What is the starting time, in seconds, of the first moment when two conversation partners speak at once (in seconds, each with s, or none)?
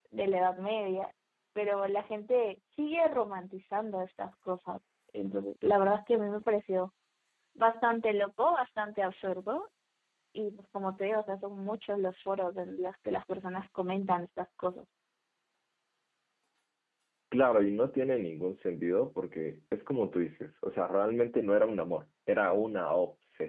none